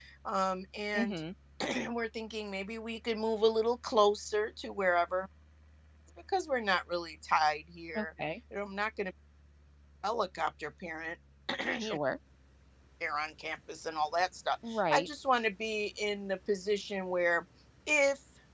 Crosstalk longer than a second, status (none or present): none